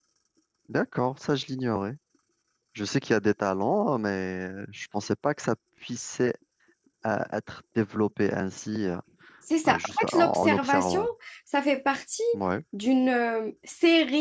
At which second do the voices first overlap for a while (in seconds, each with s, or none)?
9.8 s